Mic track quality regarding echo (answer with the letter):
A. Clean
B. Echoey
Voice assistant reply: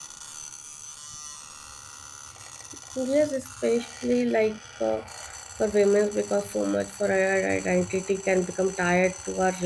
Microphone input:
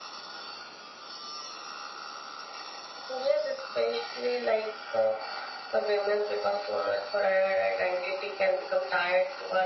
B